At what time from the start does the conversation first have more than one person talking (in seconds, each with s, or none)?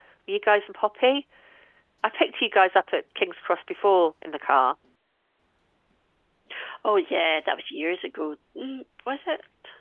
none